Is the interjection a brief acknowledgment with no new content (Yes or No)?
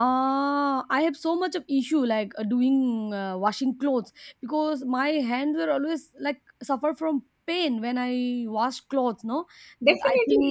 No